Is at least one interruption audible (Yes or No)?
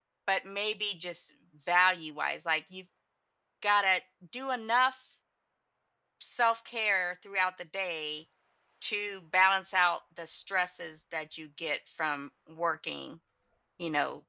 No